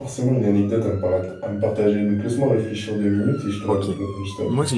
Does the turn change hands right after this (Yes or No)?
Yes